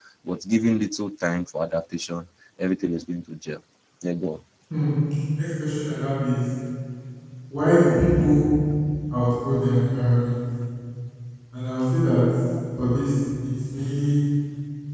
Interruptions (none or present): none